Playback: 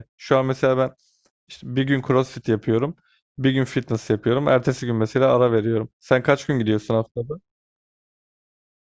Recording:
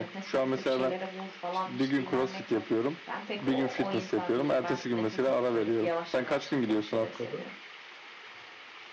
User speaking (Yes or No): Yes